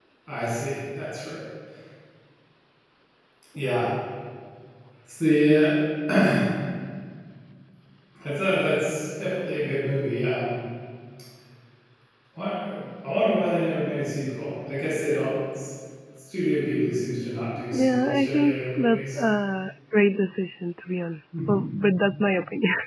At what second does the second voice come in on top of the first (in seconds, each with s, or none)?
17.7 s